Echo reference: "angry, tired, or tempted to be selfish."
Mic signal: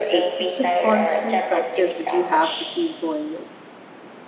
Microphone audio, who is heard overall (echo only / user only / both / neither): both